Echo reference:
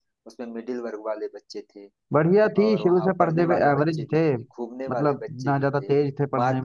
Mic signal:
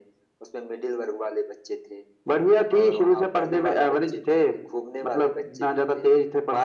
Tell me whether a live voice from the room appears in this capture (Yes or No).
No